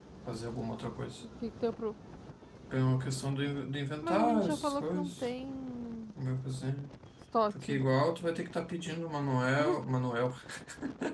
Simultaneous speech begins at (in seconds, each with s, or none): 4.0 s